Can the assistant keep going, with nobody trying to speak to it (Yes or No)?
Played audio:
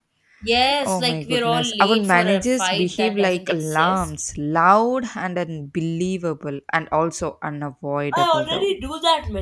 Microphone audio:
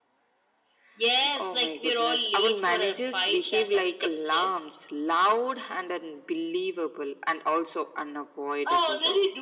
Yes